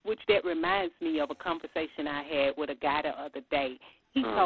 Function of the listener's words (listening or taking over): listening